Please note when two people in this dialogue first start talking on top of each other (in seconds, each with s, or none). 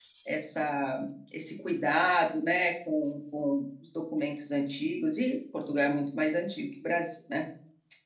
none